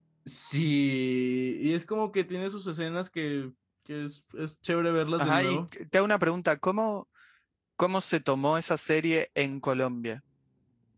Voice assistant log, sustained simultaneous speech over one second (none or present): none